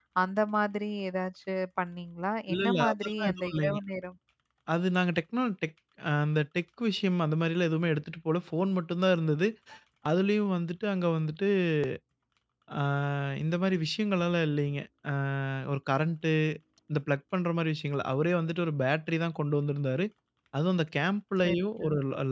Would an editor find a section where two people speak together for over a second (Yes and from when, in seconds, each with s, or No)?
Yes, from 2.5 s